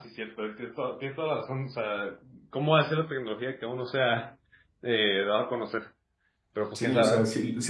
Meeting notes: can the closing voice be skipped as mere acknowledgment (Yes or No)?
No